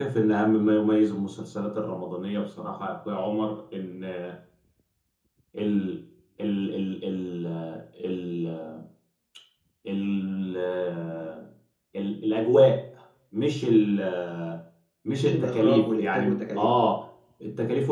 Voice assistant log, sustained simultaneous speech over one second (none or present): present